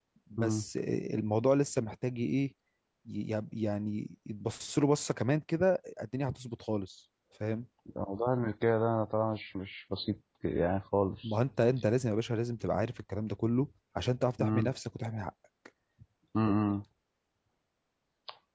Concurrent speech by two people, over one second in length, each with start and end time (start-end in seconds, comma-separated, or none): none